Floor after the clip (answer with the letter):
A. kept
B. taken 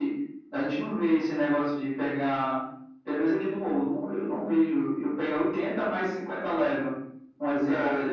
B